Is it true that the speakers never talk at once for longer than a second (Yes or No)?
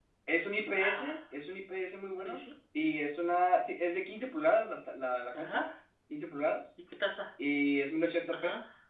Yes